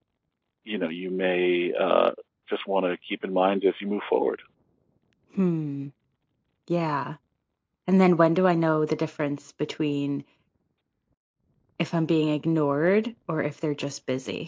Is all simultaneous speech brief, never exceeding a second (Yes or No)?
Yes